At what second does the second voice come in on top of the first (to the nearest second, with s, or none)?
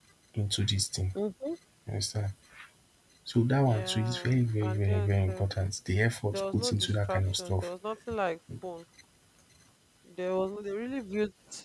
4 s